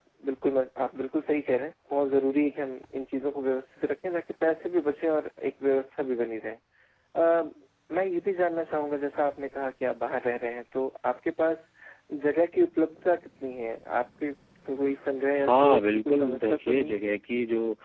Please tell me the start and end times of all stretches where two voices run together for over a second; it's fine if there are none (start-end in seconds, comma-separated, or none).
15.3-17.0